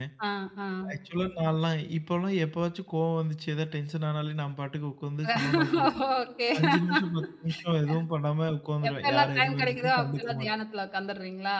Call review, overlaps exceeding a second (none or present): present